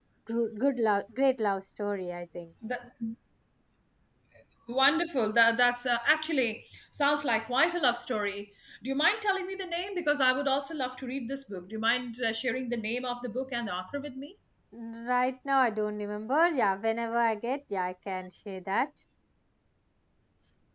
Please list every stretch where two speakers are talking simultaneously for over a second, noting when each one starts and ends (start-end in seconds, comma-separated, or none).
none